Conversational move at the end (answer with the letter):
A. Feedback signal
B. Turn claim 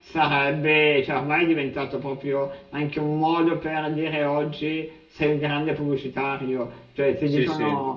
A